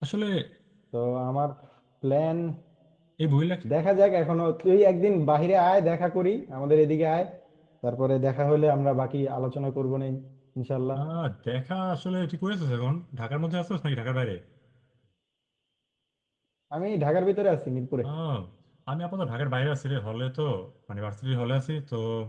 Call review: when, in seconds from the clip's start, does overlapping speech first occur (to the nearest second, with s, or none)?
none